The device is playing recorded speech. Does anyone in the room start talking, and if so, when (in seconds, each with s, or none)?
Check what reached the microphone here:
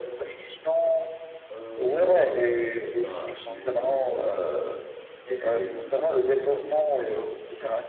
1.5 s